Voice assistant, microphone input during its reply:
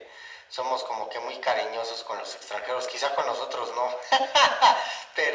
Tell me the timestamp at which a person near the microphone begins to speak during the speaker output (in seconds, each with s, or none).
none